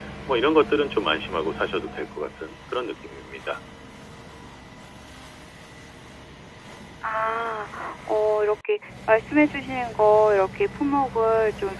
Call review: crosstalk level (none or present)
none